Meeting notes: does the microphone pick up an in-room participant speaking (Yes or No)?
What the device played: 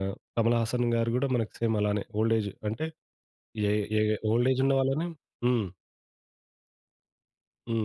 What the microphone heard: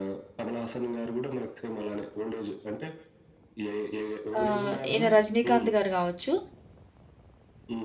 Yes